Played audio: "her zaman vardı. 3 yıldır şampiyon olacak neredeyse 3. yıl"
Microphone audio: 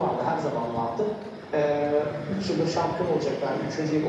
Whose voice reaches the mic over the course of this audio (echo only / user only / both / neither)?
echo only